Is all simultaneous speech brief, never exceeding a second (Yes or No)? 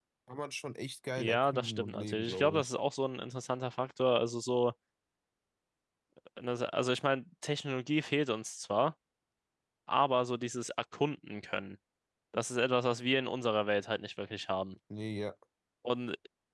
No